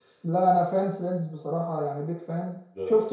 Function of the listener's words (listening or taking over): listening